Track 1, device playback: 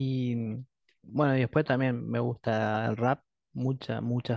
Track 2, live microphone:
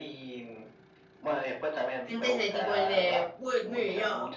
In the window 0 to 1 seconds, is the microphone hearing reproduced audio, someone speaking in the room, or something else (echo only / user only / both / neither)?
echo only